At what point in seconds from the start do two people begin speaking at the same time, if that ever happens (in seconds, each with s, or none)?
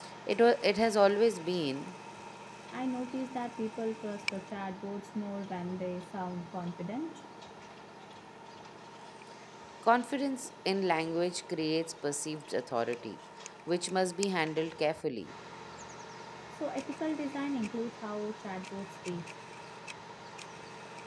none